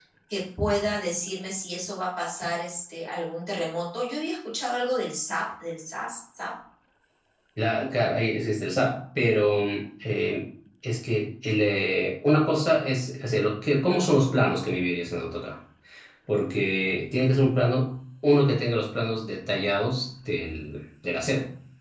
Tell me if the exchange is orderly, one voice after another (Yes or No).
Yes